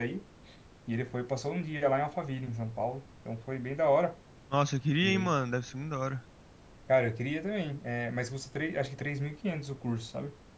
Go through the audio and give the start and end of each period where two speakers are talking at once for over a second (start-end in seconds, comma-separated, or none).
none